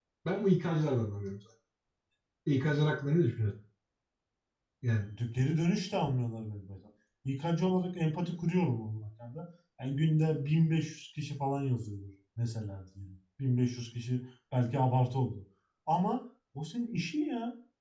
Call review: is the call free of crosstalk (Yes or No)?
Yes